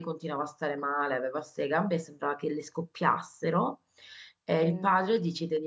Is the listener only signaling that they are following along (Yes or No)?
Yes